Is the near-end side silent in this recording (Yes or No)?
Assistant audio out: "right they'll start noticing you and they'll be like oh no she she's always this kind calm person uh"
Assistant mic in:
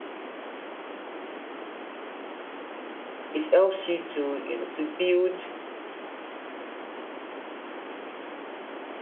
No